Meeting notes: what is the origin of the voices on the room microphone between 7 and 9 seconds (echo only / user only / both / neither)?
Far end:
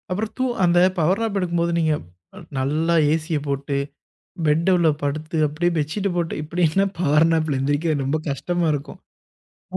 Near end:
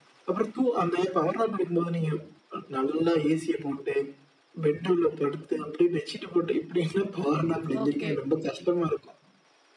both